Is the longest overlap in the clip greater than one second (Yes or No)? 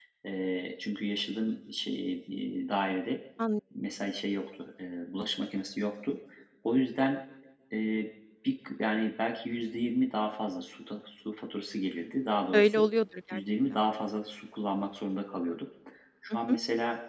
No